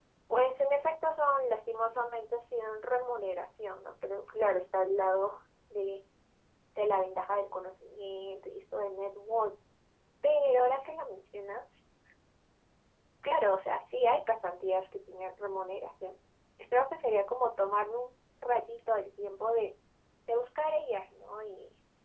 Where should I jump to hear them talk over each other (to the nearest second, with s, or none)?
none